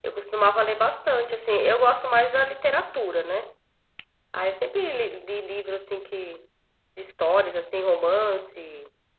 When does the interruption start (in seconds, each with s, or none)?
none